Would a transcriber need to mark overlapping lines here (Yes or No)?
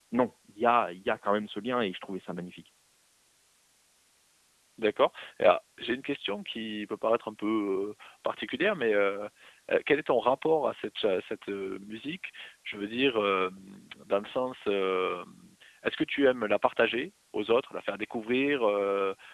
No